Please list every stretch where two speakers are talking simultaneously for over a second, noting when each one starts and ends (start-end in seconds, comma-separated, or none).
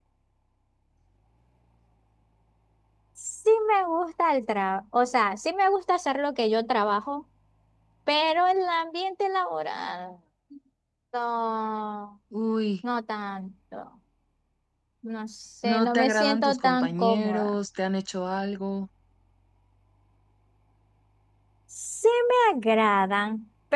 15.6-17.6